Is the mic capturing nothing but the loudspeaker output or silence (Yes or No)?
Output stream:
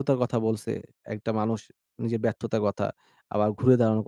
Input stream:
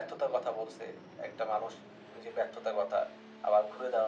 Yes